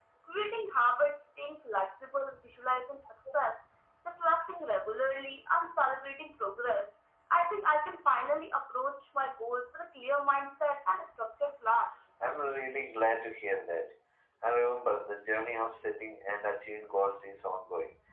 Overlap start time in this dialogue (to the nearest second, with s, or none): none